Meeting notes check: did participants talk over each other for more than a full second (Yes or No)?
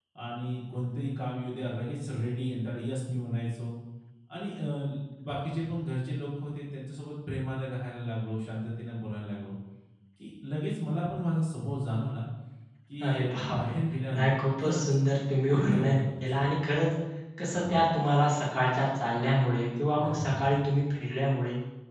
Yes